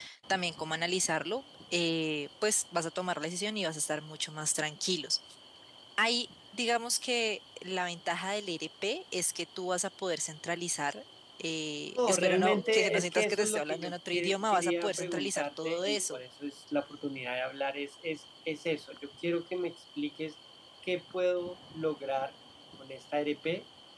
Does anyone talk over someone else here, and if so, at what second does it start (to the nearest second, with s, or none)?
12 s